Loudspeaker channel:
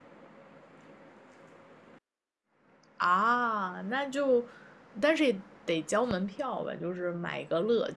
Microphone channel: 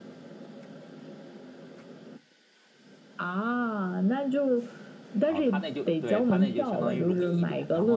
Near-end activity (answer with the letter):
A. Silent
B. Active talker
B